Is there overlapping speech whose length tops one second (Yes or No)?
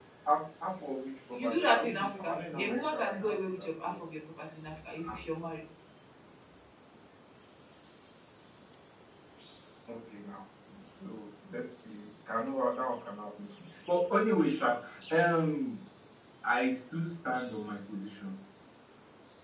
Yes